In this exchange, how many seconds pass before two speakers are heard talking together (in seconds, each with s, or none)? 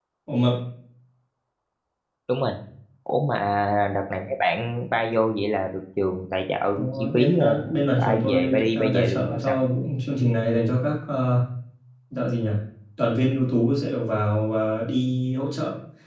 7.0 s